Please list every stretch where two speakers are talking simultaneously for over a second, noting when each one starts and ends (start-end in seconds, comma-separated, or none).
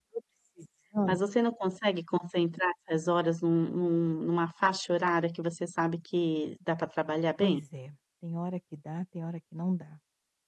none